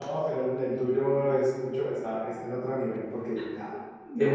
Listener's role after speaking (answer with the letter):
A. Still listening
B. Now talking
A